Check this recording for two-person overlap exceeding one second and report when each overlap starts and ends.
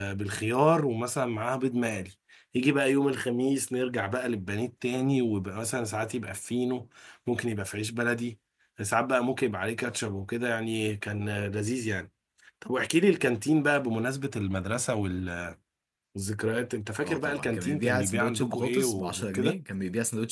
17.0-19.6

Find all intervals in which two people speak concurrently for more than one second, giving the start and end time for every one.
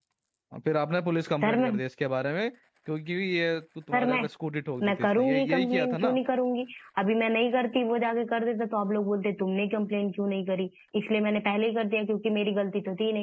4.9-6.2

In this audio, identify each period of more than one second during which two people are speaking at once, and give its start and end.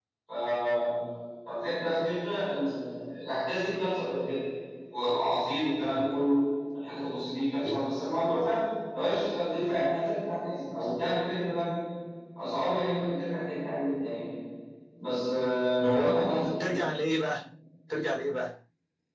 none

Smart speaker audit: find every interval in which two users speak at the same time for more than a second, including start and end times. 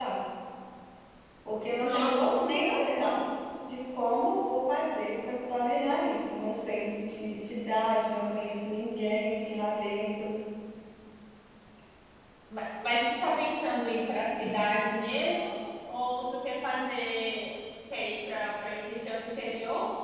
1.8-3.1

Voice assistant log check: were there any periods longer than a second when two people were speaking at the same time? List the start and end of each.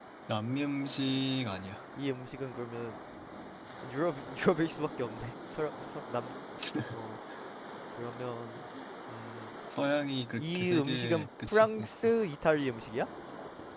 10.4-11.9

